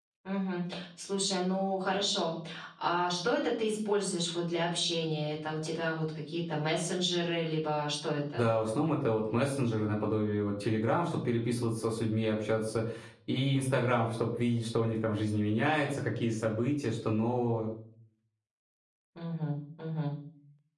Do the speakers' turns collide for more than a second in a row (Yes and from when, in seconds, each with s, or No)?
No